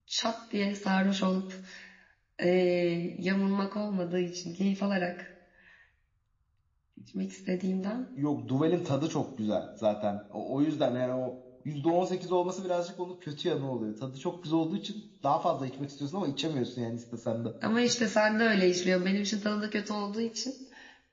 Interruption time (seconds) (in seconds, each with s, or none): none